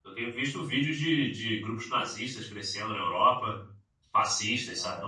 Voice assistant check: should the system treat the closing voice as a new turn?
Yes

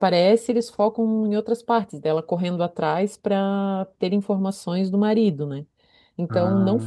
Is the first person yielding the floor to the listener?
No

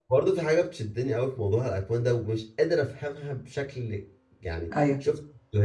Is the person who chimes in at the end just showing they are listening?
Yes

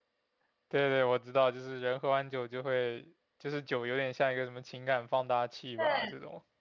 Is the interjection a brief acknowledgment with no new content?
No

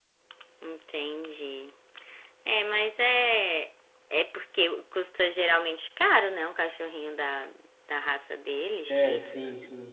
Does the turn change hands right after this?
Yes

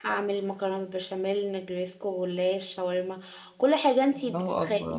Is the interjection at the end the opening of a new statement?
Yes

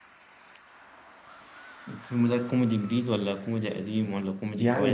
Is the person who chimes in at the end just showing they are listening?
No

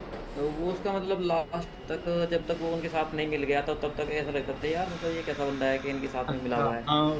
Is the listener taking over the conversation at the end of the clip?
Yes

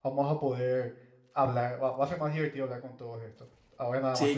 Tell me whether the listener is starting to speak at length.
Yes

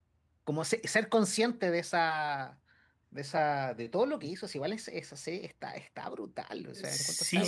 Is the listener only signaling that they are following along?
No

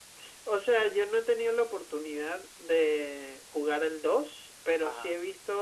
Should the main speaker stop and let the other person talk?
No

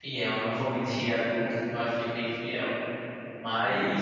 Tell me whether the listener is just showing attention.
Yes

